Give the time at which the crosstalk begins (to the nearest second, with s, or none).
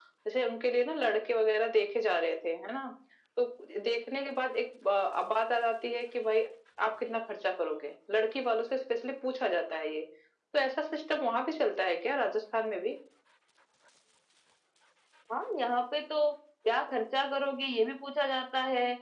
none